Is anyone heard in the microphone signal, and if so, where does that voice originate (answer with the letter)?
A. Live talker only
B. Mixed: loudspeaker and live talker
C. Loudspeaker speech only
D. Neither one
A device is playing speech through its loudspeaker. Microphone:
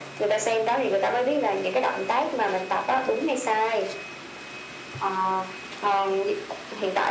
C